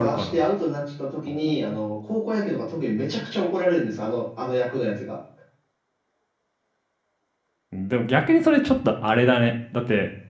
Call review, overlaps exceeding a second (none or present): none